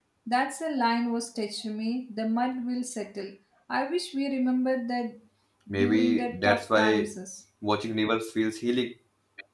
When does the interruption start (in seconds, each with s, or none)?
5.8 s